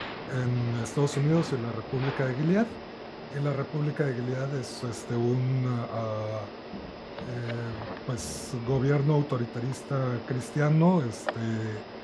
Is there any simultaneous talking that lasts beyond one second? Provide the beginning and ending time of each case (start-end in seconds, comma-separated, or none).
none